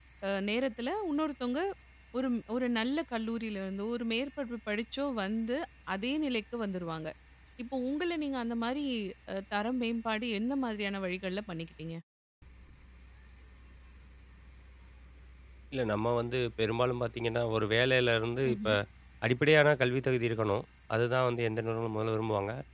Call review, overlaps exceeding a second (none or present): none